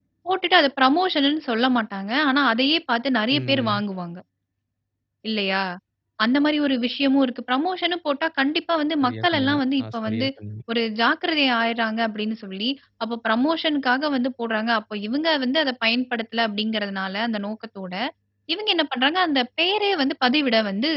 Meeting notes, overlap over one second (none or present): present